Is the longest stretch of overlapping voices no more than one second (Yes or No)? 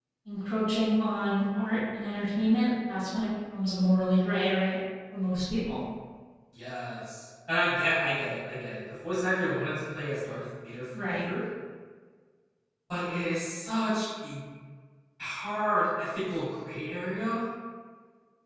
Yes